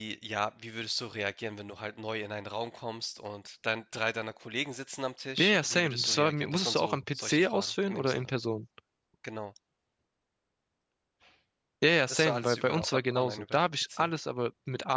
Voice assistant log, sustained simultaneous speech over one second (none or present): present